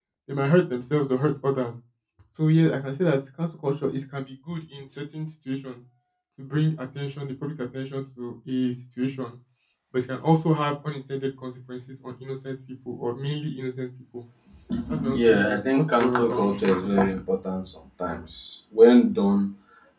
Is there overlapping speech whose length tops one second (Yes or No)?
Yes